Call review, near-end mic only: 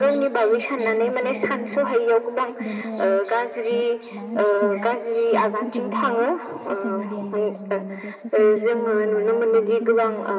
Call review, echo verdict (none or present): present